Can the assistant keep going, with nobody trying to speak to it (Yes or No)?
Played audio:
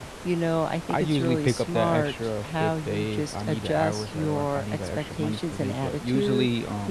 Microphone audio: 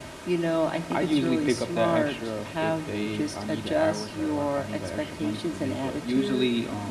Yes